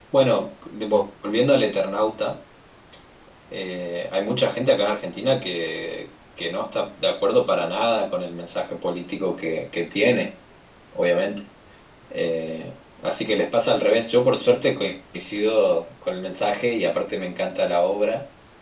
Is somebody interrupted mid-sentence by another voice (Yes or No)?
No